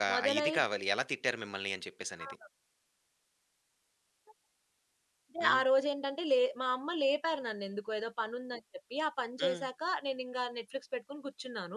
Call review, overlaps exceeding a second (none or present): none